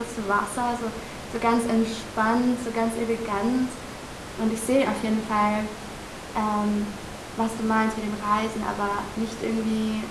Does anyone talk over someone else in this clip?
No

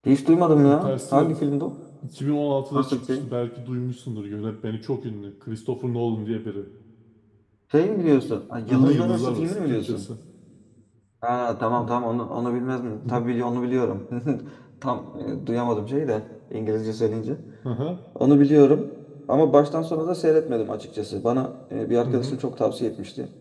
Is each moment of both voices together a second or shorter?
No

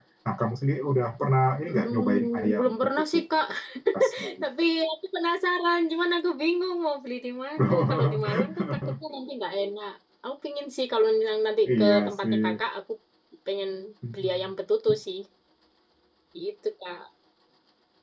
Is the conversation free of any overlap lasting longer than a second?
No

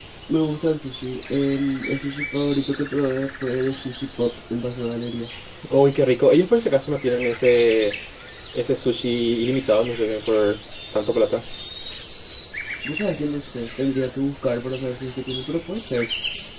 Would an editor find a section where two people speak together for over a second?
No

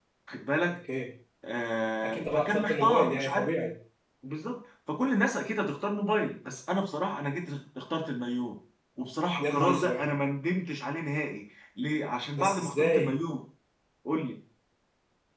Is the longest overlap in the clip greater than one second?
Yes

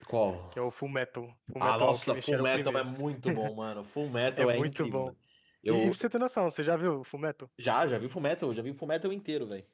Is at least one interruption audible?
Yes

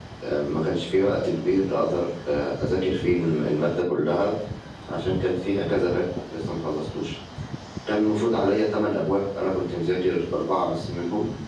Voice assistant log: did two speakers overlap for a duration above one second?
No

